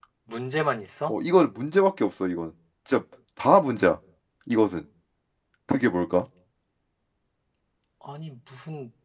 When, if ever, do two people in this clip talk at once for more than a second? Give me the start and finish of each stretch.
none

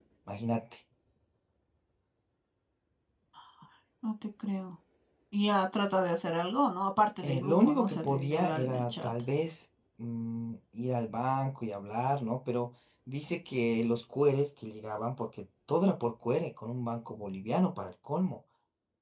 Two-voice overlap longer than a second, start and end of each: 7.2-9.1

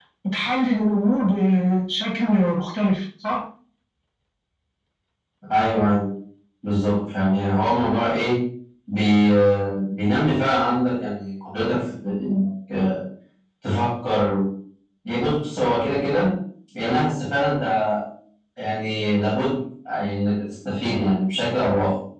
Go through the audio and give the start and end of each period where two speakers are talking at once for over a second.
none

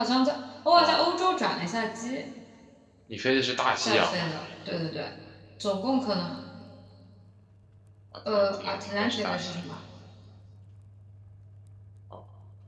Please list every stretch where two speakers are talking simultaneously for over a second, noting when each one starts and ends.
8.3-9.6

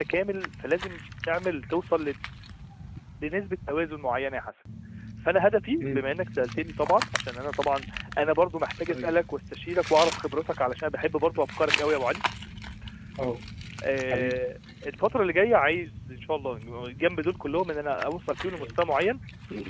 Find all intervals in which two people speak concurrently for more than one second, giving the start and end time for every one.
none

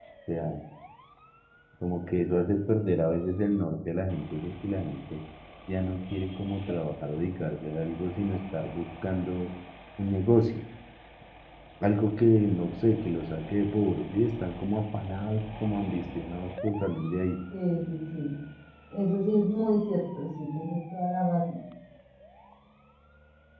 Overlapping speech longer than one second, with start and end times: none

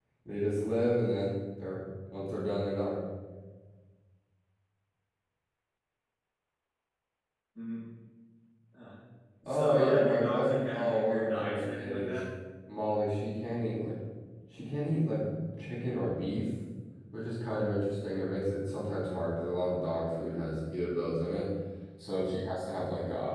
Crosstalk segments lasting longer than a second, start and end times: 9.5-12.2

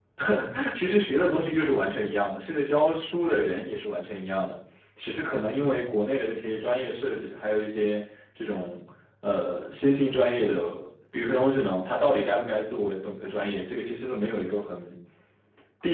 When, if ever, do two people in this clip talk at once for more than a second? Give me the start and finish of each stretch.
none

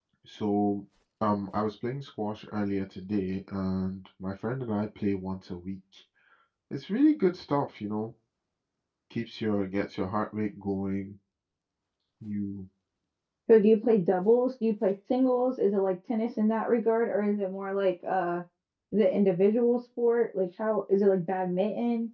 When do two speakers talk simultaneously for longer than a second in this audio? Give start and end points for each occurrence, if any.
none

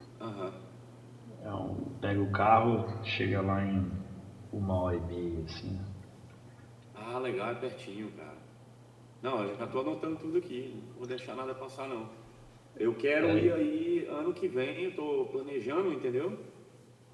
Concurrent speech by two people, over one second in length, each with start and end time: none

